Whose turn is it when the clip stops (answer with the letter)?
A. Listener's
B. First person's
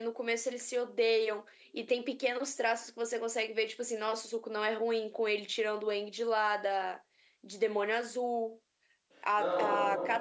B